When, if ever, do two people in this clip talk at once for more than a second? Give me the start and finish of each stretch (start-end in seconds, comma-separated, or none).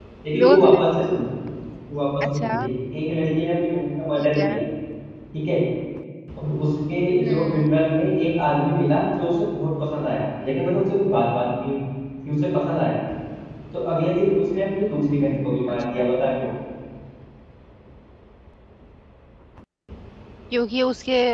none